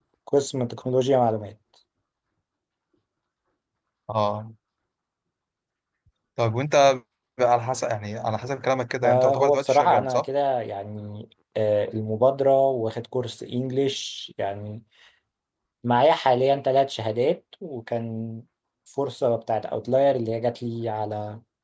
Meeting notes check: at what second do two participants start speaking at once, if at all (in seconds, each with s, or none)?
9.0 s